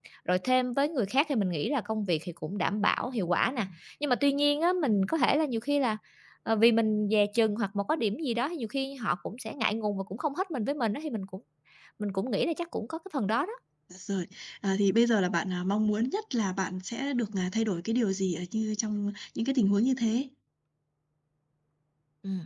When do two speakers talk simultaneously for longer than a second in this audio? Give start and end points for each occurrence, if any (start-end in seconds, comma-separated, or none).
none